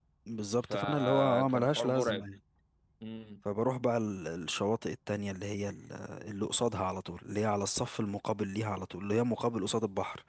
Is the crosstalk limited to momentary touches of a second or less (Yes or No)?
No